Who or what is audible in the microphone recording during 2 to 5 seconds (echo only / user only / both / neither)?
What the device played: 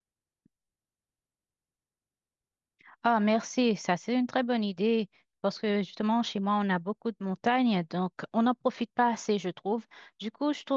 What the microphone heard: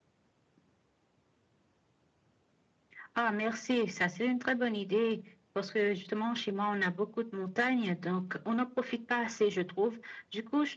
echo only